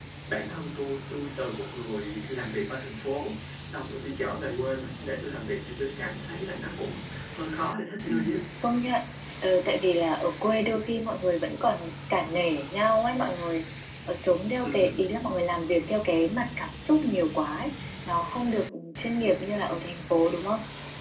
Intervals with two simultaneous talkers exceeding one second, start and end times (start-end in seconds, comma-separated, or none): none